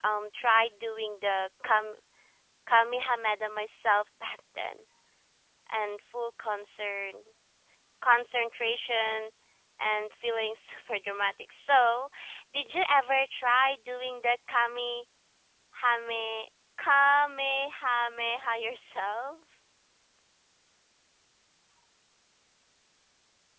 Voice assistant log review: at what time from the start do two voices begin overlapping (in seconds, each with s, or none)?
none